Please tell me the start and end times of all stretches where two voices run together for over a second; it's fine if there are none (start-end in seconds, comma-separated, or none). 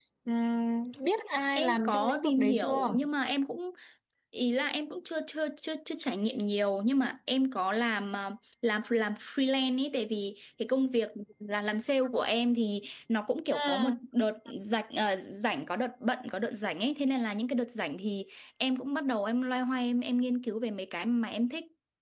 1.5-2.9